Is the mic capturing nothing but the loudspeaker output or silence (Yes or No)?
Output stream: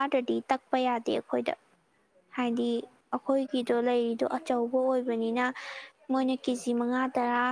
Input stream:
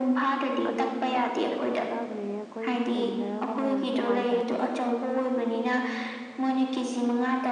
No